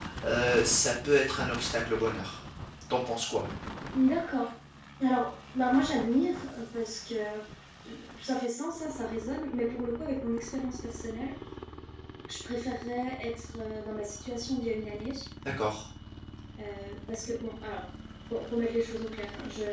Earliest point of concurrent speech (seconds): none

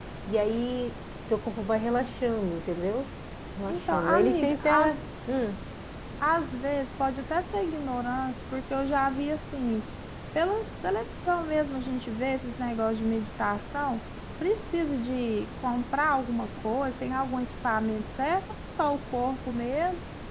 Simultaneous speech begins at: 3.7 s

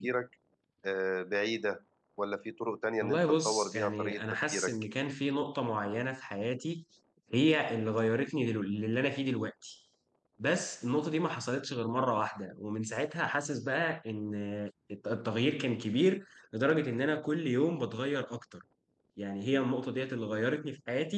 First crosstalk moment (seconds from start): 3.0 s

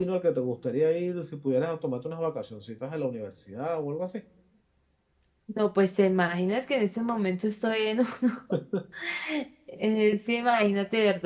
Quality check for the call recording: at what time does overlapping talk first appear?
none

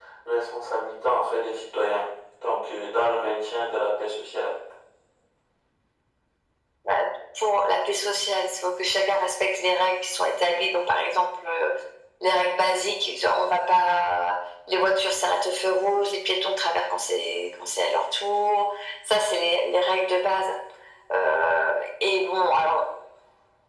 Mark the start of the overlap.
none

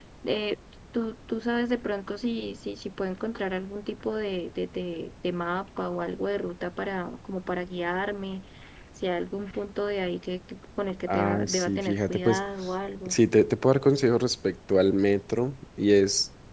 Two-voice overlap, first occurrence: 11.1 s

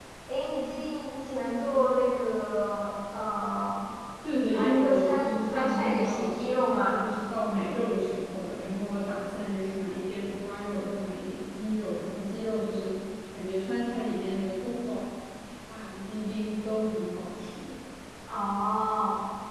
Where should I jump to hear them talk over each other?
4.5 s

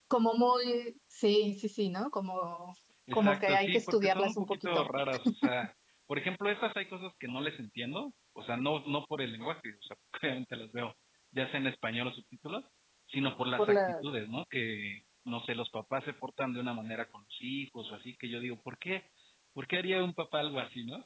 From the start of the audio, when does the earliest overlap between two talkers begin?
3.1 s

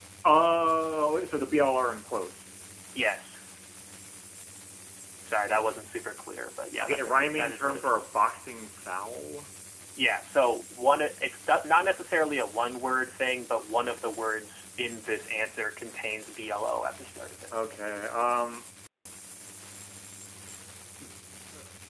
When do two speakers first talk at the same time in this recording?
6.8 s

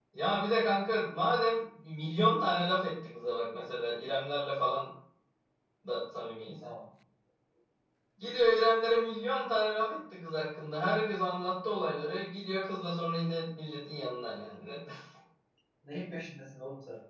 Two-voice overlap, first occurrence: none

